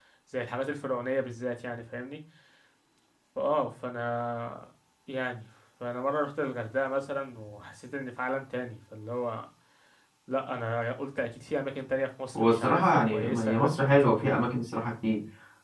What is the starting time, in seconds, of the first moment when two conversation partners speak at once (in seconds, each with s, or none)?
12.3 s